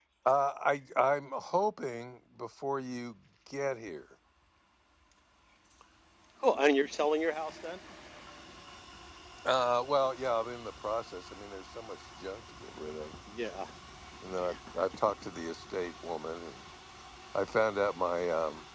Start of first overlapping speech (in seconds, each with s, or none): none